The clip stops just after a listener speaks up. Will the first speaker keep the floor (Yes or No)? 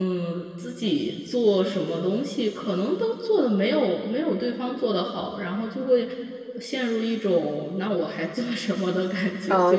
No